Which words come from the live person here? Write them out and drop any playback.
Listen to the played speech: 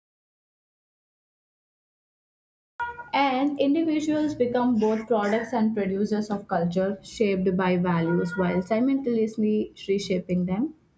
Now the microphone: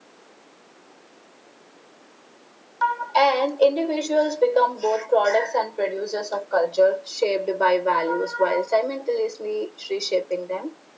none

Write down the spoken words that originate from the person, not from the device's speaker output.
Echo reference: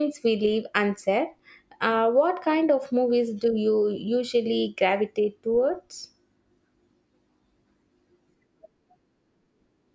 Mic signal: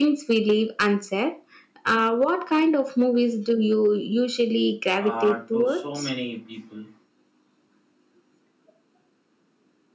uh, to so many people.

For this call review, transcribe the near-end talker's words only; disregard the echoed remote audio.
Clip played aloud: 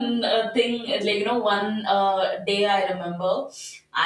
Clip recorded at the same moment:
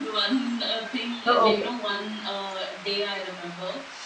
Oh, okay.

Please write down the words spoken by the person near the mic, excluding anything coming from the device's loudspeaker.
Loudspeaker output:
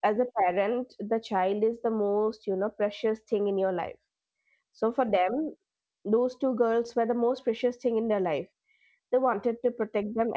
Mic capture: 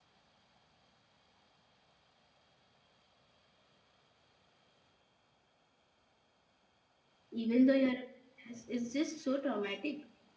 even though you're a princess? It's just so traumatic.

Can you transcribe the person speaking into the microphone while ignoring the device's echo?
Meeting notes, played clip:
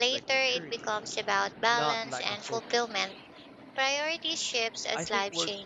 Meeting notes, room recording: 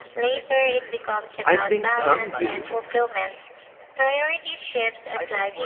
I think some do,

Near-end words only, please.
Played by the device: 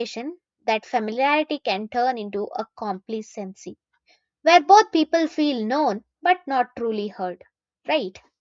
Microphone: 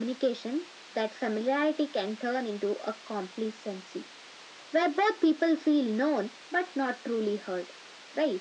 none

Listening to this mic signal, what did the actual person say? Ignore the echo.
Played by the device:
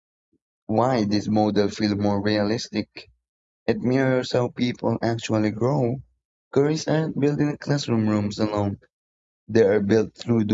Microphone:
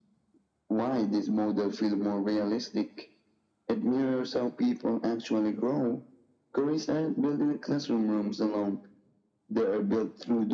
none

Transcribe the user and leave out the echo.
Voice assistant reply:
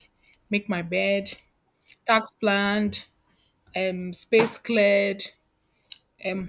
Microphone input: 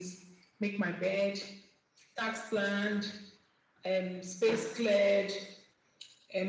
none

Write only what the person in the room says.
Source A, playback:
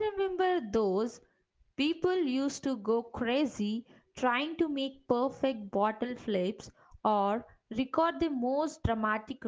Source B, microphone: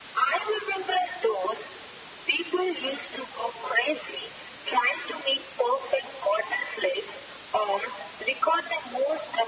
none

